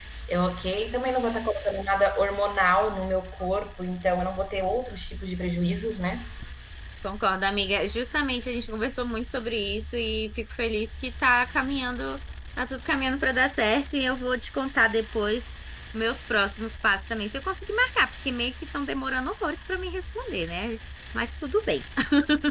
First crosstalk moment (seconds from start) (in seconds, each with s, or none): none